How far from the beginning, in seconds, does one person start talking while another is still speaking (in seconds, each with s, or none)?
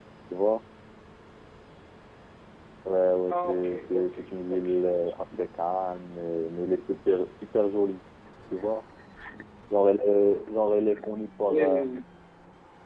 3.3 s